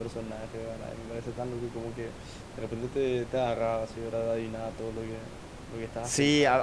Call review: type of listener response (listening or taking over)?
taking over